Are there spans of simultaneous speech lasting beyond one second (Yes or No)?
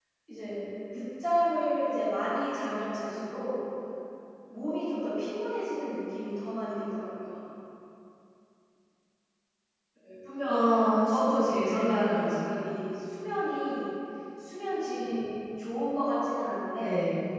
Yes